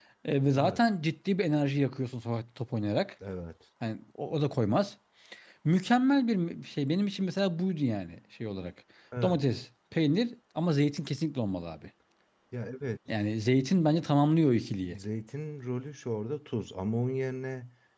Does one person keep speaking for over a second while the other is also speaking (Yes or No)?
No